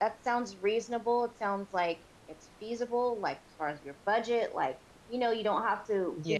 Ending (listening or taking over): listening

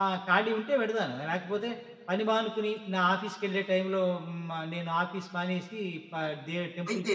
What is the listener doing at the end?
taking over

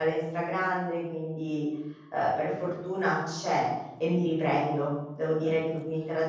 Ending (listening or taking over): listening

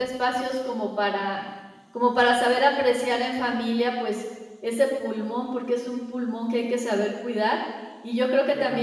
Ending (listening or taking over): listening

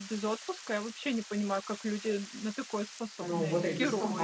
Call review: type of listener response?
taking over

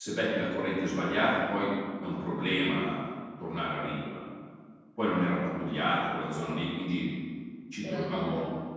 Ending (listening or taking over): listening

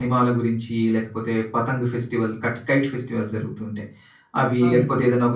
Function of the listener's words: listening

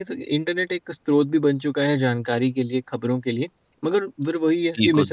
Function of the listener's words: listening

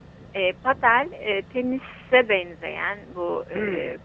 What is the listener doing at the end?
listening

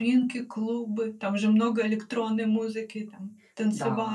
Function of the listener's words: taking over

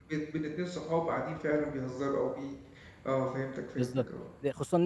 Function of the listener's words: taking over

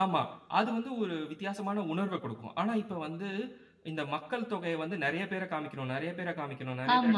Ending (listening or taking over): taking over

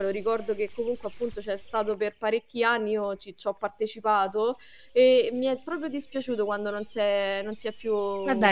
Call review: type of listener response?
taking over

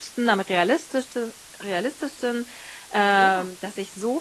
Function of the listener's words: listening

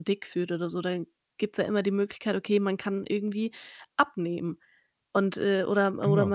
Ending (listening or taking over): listening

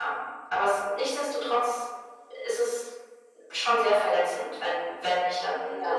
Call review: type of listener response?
listening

